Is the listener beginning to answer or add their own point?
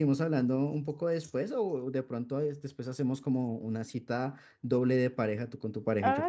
Yes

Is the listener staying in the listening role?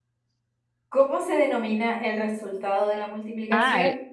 No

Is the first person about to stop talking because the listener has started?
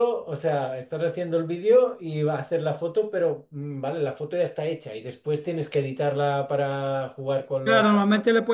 Yes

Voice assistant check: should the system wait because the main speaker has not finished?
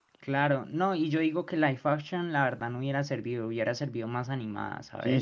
No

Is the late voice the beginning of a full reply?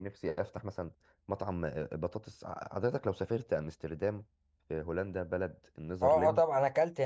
Yes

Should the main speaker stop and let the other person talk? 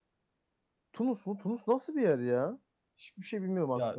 Yes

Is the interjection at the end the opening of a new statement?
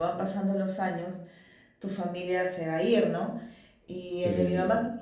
No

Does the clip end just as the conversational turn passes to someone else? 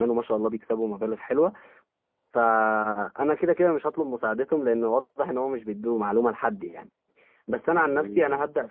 No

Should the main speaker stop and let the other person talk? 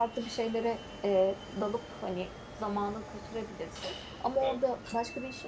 No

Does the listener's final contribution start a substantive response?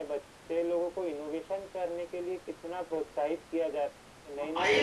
Yes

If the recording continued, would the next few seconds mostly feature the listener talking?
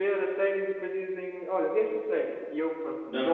Yes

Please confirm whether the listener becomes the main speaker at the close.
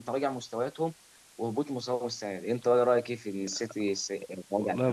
Yes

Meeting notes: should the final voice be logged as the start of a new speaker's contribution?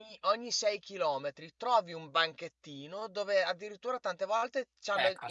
No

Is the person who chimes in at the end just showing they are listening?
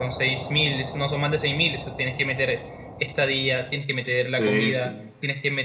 Yes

